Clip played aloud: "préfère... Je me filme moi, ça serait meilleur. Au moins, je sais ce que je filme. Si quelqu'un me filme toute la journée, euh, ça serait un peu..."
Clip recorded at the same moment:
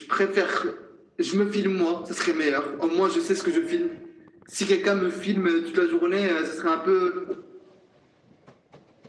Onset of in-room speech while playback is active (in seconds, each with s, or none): none